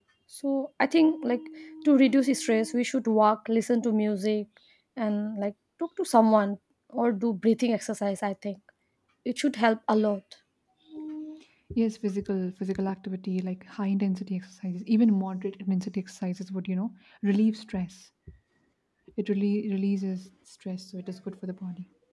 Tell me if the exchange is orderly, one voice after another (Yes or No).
Yes